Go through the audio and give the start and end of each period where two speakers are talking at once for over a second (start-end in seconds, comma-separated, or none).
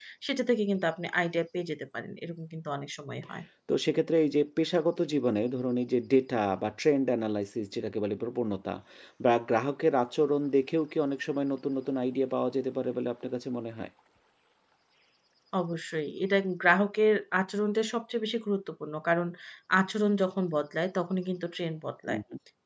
none